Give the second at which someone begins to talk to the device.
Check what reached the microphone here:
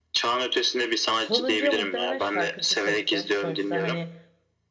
1.1 s

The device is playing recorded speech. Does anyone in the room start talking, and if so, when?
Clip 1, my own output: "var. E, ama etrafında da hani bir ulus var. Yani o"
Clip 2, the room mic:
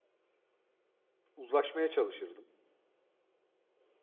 1.4 s

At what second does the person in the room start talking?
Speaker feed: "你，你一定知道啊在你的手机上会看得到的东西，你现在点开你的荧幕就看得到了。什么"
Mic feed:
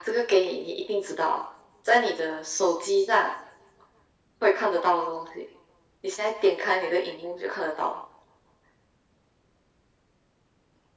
none

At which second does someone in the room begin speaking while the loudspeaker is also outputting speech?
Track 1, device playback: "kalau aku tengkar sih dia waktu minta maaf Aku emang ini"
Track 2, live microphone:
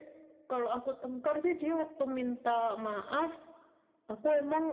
none

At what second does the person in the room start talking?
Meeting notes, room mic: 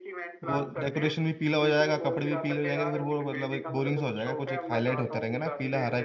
0.4 s

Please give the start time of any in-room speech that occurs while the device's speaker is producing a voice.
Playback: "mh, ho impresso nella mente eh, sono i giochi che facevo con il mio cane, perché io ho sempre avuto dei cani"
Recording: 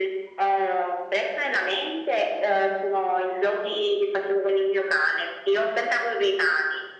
none

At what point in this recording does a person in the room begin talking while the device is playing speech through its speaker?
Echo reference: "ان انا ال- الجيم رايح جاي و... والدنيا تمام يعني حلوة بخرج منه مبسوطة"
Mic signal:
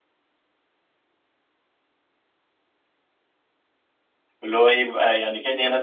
4.4 s

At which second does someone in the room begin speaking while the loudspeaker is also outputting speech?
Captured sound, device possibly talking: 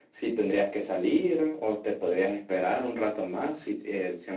none

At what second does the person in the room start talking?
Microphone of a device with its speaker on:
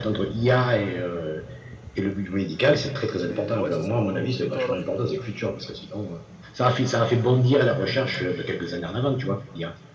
3.2 s

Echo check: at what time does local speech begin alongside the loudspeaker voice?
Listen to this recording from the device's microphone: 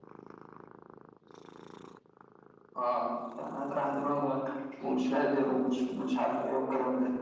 none

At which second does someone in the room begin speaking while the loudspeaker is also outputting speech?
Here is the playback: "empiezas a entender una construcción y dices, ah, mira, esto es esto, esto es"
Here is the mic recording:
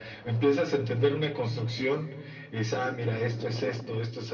none

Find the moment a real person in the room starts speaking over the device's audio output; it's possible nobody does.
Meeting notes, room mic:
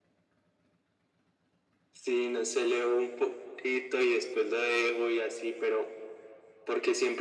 none

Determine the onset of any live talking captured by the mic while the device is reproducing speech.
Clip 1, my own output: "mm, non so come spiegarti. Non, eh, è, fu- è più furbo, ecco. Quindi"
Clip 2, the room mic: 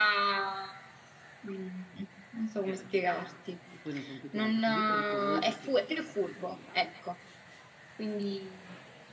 2.5 s

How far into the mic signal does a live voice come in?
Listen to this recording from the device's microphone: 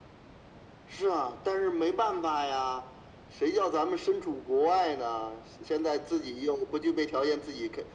none

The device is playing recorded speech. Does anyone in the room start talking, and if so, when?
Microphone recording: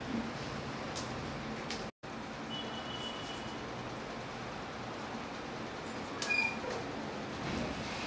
none

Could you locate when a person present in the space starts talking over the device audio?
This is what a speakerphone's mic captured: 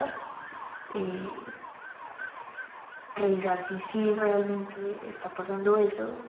none

